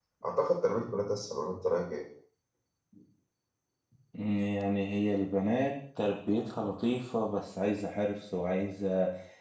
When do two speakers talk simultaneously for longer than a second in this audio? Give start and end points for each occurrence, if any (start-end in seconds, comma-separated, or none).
none